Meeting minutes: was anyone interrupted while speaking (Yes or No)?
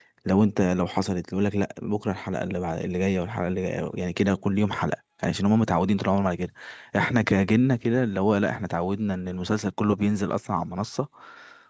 No